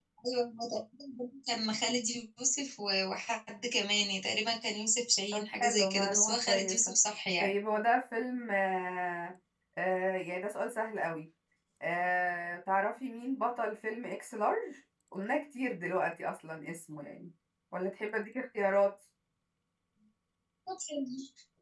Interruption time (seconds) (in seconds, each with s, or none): 5.3 s